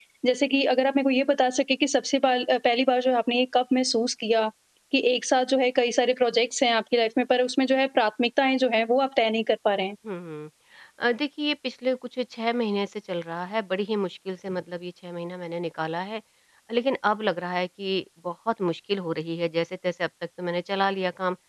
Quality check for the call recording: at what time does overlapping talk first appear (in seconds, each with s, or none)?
none